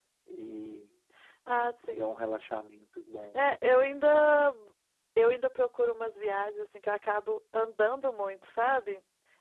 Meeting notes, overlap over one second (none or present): none